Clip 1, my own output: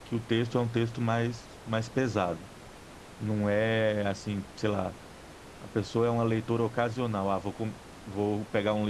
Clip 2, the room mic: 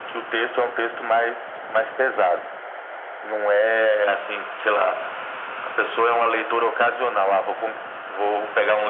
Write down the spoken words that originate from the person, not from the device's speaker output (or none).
none